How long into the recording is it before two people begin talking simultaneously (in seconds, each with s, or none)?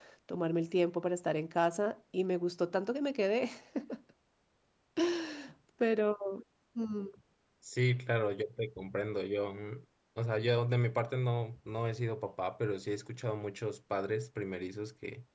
none